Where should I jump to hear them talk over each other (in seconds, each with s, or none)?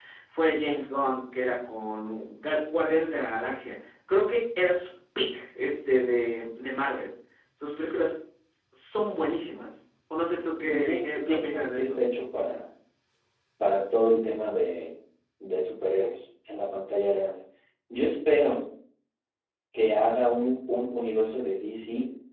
10.6 s